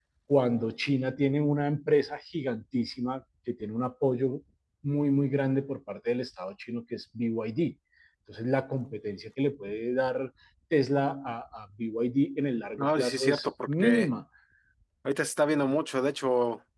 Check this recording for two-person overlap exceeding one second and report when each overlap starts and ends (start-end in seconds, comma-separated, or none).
12.8-14.1